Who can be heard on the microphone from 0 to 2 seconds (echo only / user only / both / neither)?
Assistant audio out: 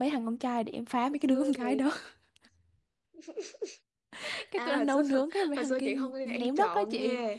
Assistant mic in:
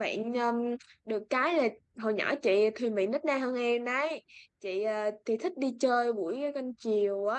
user only